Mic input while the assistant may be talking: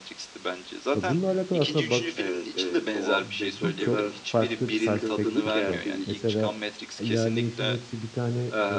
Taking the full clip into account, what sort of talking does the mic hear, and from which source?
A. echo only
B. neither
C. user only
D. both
D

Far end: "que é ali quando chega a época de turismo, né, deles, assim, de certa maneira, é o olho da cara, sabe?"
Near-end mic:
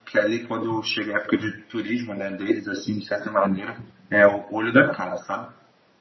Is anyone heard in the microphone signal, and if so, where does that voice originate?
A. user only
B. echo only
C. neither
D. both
B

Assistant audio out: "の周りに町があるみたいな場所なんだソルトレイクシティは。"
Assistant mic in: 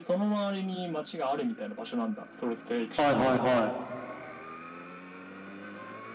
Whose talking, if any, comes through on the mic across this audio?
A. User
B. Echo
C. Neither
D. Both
D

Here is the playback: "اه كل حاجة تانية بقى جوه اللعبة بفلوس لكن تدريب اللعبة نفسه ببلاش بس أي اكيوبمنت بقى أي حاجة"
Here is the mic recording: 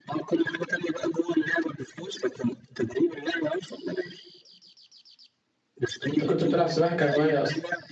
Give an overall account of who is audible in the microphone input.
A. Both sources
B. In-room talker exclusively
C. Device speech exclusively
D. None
A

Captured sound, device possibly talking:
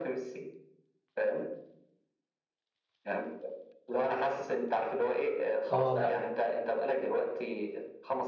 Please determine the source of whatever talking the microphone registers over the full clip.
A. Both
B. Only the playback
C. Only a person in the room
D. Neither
A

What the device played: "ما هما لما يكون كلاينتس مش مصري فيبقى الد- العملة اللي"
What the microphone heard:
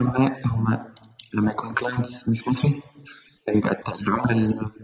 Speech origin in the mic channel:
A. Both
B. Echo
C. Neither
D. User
B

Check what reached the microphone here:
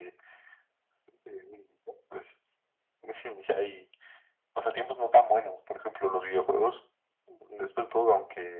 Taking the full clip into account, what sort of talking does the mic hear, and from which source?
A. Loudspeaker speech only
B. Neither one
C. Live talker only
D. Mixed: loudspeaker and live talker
A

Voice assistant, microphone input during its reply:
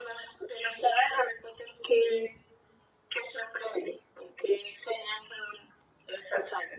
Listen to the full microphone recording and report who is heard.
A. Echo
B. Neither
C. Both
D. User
A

